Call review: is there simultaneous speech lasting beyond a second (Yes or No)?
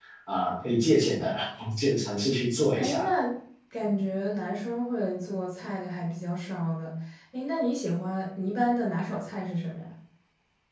No